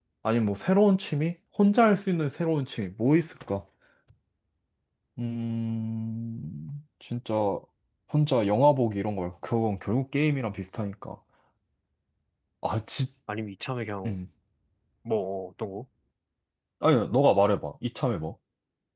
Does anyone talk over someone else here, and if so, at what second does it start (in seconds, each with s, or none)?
none